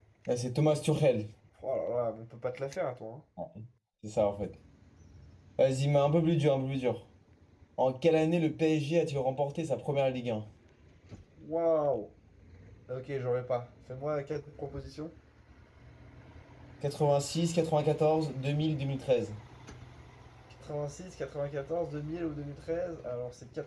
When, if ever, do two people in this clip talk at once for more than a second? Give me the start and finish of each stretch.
none

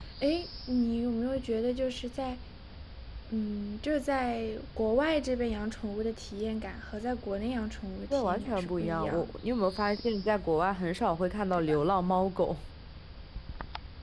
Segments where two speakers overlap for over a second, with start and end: 8.1-9.3

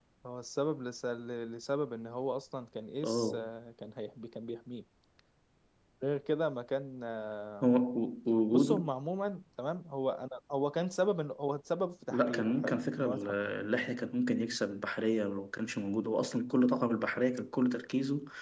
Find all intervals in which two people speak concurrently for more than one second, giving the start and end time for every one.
12.1-13.4

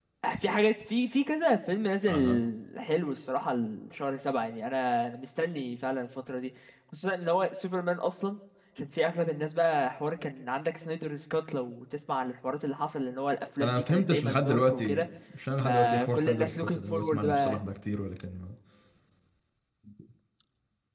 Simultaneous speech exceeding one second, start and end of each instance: 13.6-15.1, 15.6-17.6

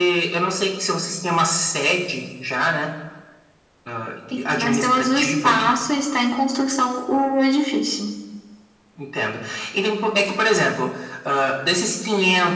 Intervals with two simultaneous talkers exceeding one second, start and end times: 4.3-5.7

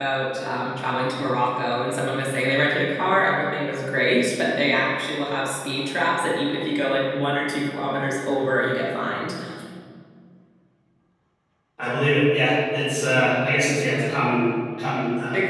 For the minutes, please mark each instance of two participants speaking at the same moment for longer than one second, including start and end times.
none

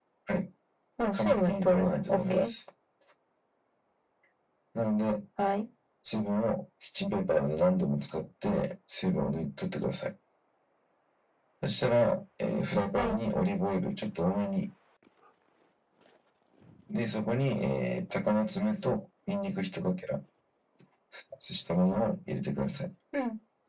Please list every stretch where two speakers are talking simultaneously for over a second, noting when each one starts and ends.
1.1-2.5

